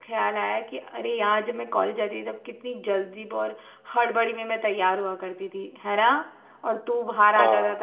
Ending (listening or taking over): listening